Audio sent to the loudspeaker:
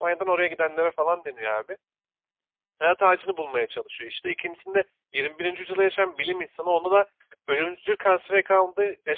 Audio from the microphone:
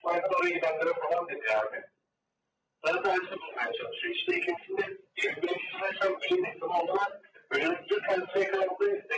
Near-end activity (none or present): none